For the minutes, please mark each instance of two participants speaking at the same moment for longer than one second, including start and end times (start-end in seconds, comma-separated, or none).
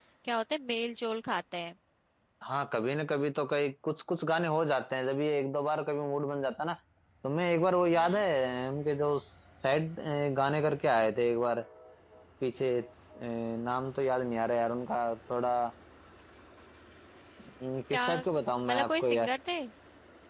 17.9-19.3